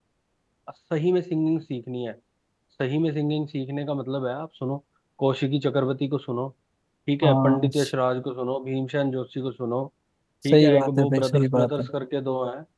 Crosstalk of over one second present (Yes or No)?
Yes